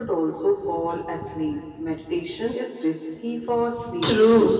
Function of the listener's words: taking over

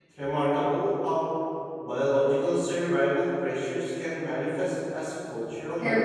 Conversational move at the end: taking over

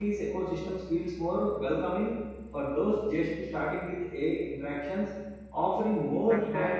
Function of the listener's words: taking over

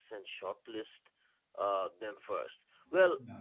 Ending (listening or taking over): listening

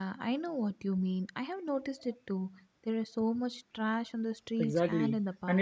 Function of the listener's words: taking over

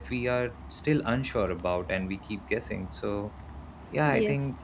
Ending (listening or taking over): listening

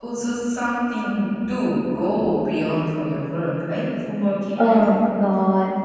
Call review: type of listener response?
taking over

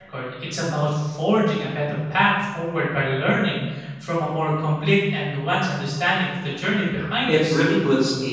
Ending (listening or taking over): taking over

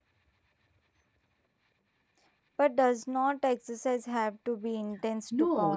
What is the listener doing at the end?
taking over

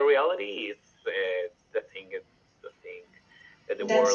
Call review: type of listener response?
listening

